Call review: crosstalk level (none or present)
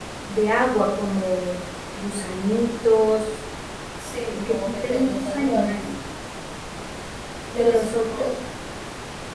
present